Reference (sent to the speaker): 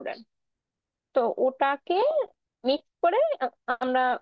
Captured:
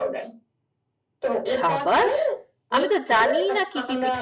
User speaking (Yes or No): Yes